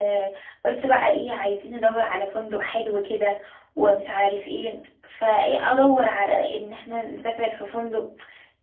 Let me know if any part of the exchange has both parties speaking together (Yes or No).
No